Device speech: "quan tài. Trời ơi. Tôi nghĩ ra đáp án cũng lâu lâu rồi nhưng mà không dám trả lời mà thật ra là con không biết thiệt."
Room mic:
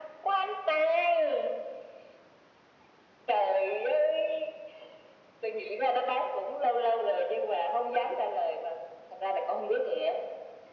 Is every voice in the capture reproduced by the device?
Yes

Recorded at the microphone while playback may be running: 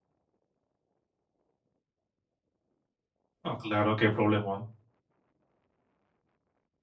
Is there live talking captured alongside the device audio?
Yes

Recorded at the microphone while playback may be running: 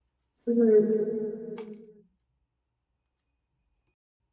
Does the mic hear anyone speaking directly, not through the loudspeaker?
Yes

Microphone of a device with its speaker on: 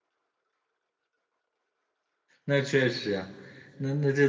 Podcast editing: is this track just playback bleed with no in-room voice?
No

